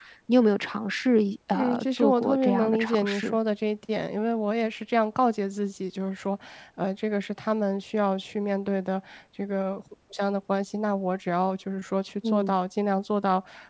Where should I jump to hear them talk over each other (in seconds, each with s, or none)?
1.5 s